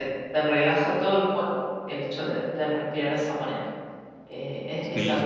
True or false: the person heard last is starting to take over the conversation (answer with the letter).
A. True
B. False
A